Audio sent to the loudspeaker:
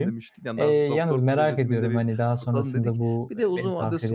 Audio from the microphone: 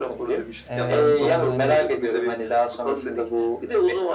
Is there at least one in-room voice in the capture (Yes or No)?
Yes